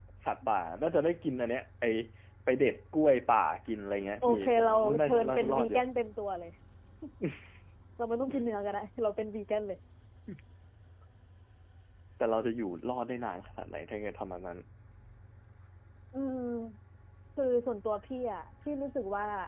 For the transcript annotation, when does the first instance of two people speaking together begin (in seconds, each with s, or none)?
4.2 s